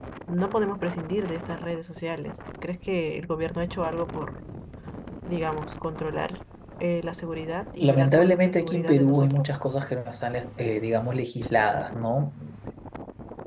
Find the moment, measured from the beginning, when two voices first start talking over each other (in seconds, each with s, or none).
7.8 s